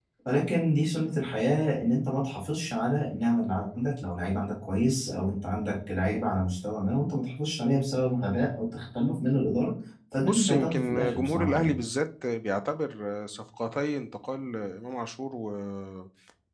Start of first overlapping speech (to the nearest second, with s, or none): 10 s